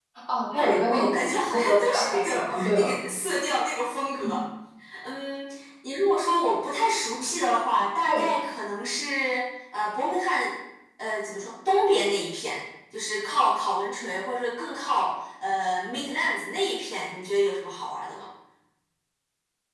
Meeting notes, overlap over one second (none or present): present